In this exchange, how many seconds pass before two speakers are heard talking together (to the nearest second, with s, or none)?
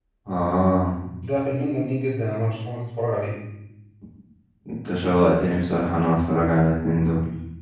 none